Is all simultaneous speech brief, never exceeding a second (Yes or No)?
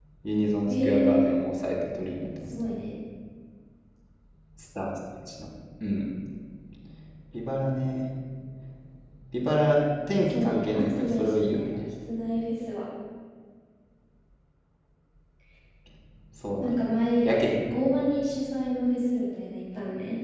No